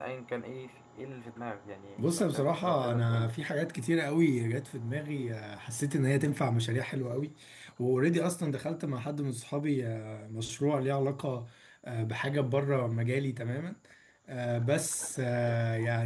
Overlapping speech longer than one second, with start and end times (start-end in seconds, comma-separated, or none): 2.0-3.3